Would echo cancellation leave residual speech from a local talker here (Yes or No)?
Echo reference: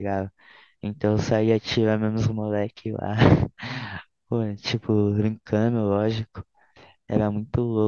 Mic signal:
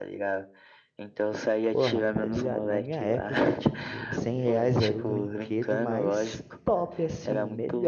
Yes